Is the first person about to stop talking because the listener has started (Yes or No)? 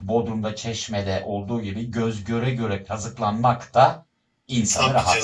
Yes